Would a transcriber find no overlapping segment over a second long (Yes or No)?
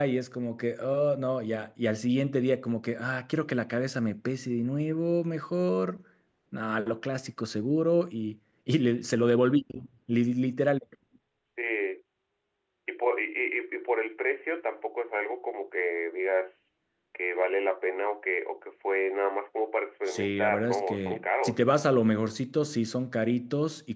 No